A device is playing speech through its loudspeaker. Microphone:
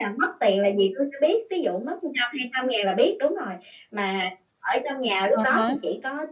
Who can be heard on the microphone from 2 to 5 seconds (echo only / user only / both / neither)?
echo only